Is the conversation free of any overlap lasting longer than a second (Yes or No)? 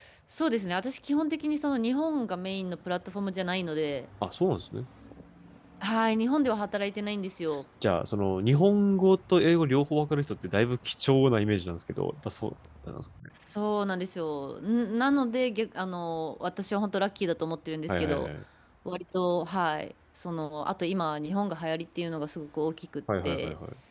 Yes